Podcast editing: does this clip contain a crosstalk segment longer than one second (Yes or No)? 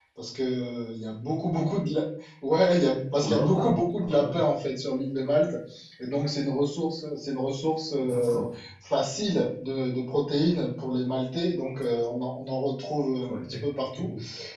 Yes